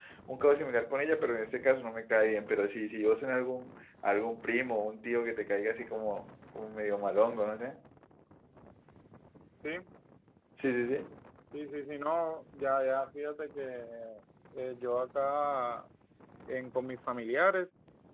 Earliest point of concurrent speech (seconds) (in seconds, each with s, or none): none